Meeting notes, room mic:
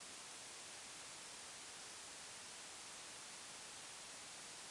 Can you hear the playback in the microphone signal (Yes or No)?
No